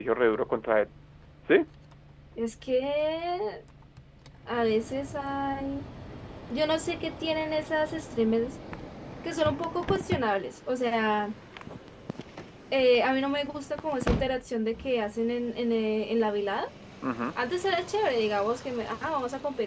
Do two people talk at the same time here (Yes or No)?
No